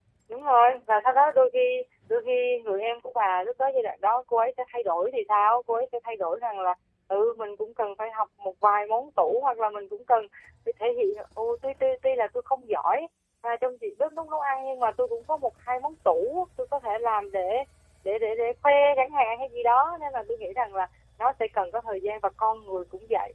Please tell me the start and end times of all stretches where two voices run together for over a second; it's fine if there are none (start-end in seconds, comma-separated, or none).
none